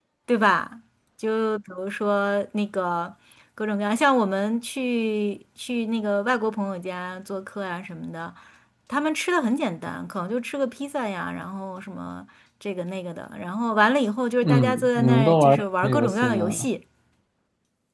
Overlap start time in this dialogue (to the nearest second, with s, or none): 14 s